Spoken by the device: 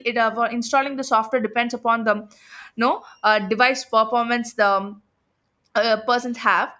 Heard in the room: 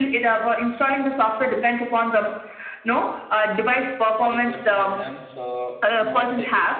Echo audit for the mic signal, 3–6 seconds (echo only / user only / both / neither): both